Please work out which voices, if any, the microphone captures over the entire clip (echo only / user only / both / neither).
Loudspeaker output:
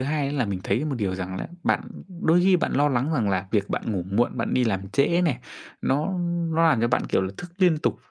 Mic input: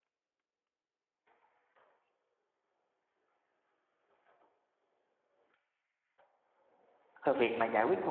user only